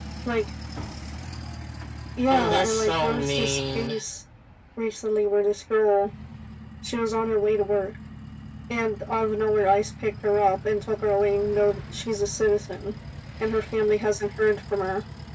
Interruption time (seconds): 2.3 s

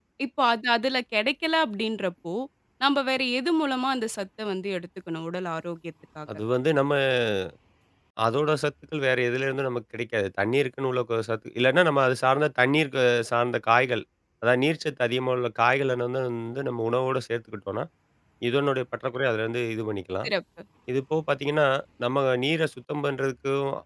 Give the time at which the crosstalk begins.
none

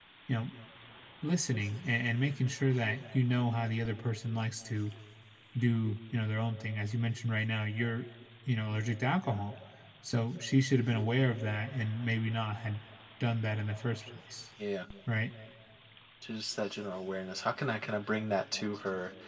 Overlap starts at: none

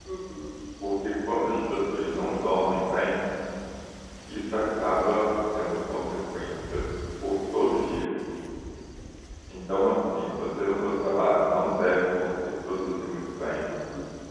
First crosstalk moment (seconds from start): none

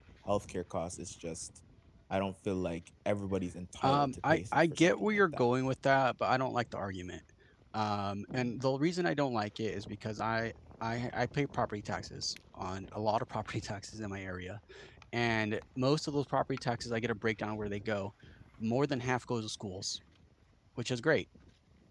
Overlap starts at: 3.8 s

